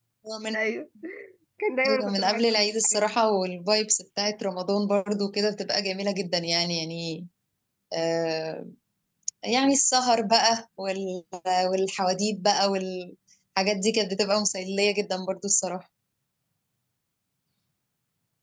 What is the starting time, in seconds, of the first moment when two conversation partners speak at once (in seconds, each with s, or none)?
1.9 s